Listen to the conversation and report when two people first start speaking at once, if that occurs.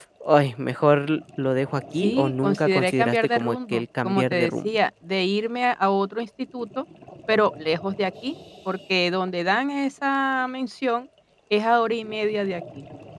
2.0 s

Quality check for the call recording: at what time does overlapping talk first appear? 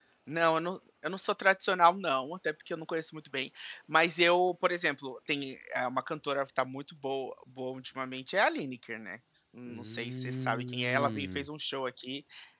9.7 s

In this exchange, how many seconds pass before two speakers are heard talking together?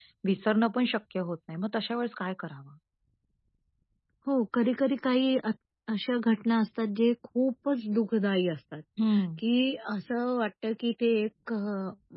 none

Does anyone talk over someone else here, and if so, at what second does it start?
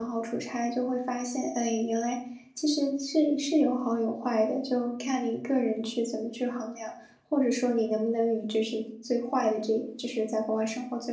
none

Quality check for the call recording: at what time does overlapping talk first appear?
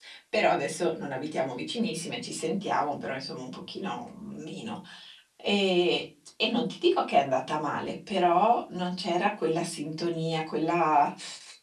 none

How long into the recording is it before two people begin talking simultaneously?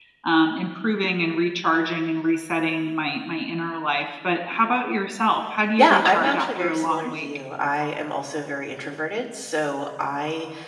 5.8 s

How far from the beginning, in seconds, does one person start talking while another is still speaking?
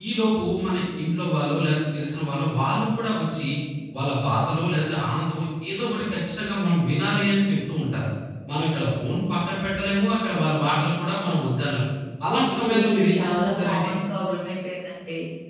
12.7 s

